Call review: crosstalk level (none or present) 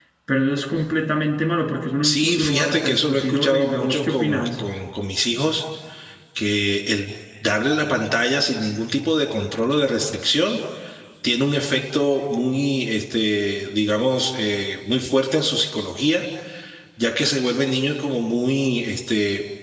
present